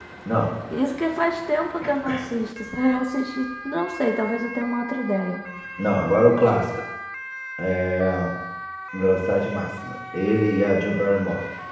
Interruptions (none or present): none